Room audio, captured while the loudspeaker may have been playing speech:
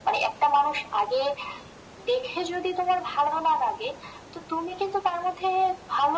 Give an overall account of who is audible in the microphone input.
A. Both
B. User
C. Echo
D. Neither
C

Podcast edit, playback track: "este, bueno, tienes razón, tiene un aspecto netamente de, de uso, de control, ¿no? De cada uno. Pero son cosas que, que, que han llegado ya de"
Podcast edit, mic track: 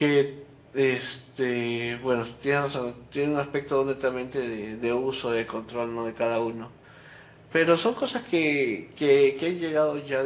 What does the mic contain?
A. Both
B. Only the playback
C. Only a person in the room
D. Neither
B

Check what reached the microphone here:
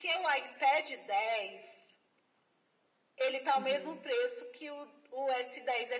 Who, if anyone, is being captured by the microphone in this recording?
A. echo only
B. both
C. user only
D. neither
B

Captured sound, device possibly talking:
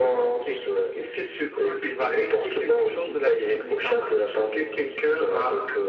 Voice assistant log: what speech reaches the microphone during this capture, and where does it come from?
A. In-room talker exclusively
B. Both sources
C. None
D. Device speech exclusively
D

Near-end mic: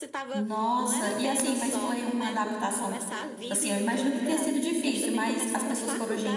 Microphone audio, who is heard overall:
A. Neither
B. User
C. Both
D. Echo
C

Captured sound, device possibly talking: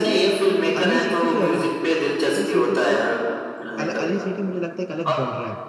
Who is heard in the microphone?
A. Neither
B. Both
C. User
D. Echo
B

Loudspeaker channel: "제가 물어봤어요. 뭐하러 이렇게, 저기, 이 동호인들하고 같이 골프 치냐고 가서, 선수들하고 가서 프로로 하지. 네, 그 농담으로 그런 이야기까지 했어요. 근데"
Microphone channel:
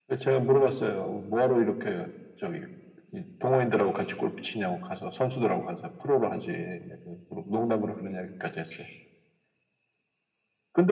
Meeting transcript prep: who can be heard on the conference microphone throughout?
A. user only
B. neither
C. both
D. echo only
D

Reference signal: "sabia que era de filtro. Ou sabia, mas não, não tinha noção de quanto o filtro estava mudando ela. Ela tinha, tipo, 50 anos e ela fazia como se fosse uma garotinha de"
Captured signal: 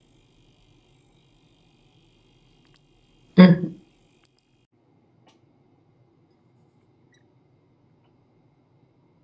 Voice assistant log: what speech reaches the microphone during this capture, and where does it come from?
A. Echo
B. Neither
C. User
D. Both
C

